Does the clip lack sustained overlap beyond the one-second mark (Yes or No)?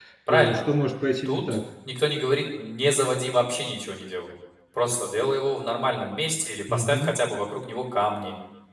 Yes